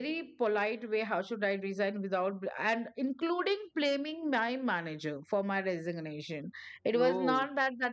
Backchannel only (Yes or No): Yes